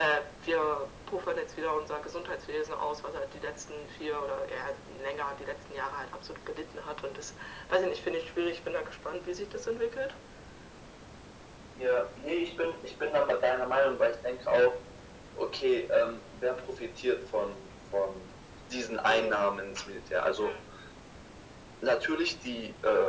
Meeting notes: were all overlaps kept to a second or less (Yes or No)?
Yes